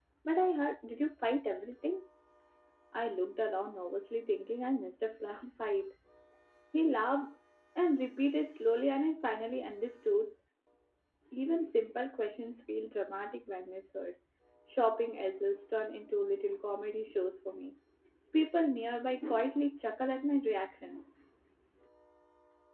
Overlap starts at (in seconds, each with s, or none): none